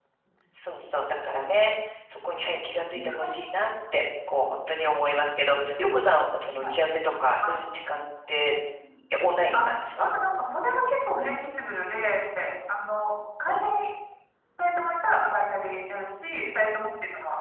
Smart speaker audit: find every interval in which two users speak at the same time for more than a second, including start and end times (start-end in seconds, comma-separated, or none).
none